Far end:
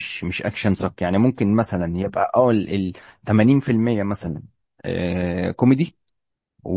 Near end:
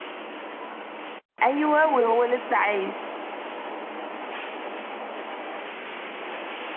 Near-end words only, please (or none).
ايوه وهو لسه عايش